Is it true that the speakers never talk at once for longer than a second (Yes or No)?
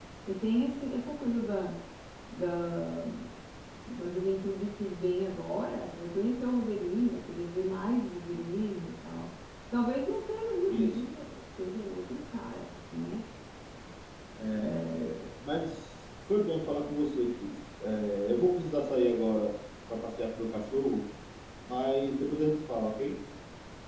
Yes